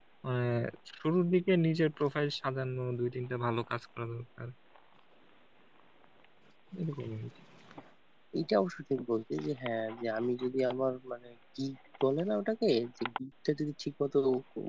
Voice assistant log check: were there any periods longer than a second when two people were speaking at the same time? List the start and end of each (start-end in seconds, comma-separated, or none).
none